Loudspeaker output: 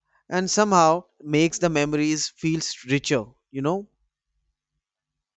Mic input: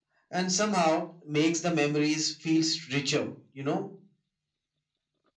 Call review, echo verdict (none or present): present